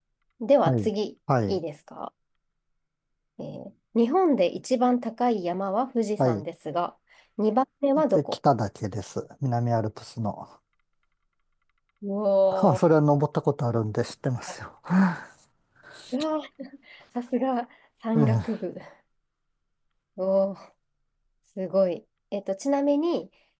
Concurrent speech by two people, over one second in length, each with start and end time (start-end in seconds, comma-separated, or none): none